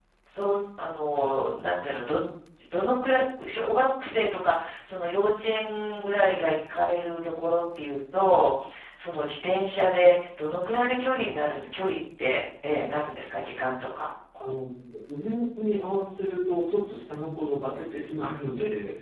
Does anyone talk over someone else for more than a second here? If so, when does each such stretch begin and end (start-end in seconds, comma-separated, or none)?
none